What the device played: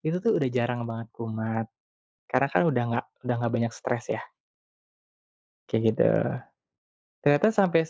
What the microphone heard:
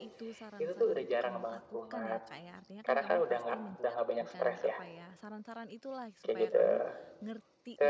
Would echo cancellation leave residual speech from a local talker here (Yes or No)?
Yes